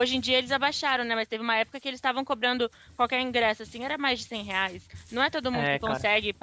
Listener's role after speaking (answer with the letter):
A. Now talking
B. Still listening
B